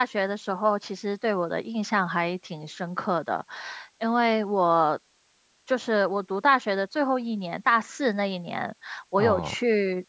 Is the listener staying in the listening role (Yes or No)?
Yes